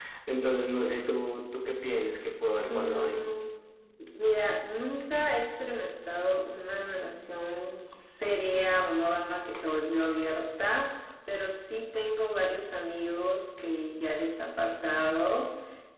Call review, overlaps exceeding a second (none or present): none